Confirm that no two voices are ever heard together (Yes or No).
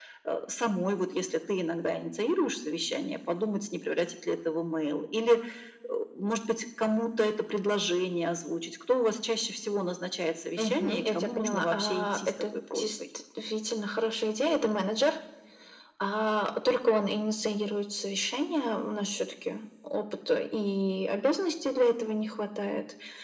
No